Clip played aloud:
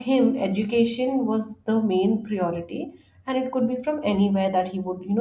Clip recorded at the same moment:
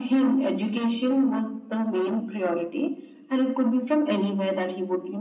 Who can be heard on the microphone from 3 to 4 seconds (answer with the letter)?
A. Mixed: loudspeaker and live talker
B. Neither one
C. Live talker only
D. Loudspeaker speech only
D